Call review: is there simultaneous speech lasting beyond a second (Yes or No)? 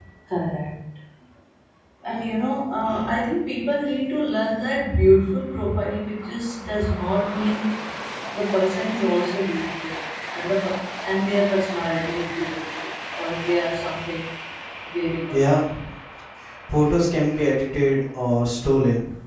No